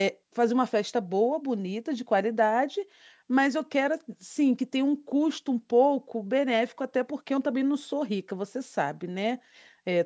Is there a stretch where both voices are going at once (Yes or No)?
No